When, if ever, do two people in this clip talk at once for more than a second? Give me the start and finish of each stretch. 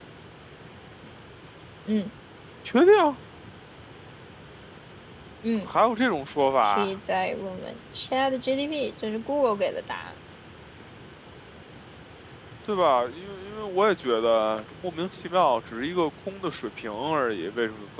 none

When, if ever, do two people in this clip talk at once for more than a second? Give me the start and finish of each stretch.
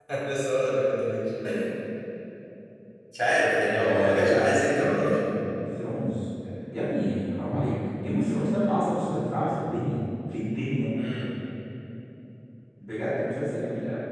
3.8-5.2

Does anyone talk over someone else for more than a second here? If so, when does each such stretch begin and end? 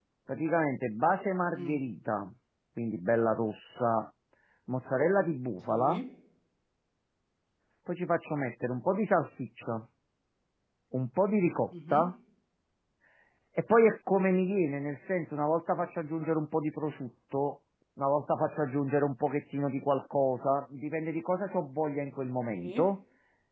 none

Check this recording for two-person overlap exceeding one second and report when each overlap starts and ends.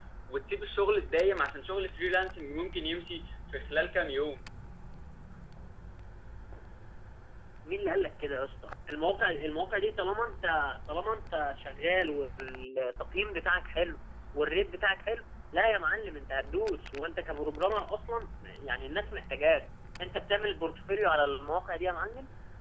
none

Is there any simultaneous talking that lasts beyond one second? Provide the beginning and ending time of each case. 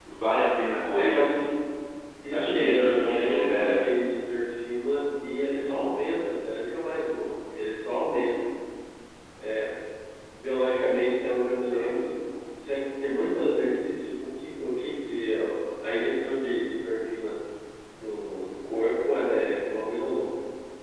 2.3-3.8

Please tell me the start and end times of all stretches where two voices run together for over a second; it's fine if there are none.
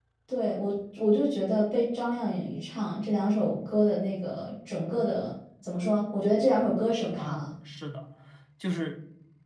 none

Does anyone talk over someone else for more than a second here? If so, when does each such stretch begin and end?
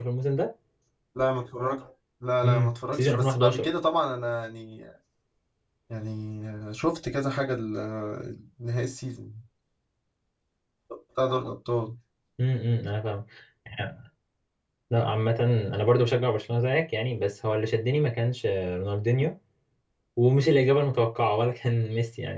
2.4-3.6

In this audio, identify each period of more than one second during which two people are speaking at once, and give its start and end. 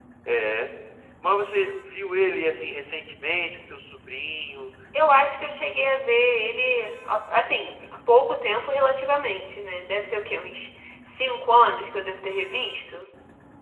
none

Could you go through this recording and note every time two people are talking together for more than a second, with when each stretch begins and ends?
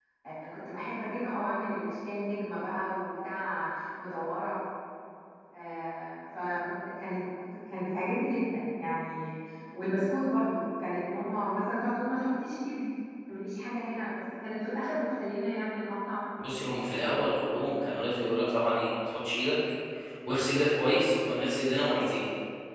none

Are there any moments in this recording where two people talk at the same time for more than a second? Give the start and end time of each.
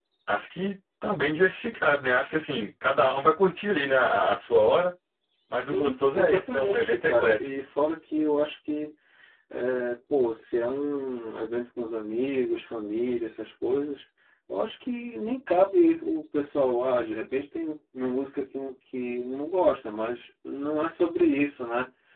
5.6-7.3

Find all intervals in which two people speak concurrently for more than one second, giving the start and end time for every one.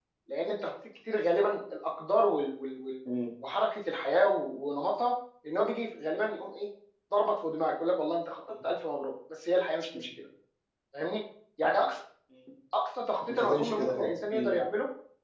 13.3-14.6

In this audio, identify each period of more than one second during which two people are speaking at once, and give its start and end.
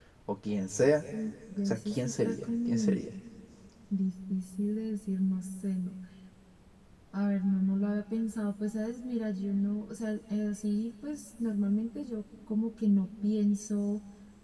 1.6-3.0

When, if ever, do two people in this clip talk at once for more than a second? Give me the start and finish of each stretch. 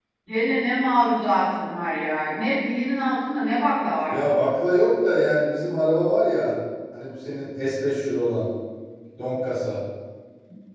none

